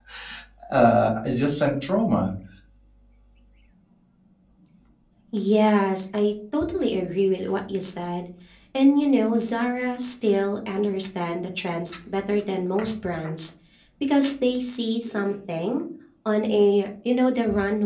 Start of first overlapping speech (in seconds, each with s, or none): none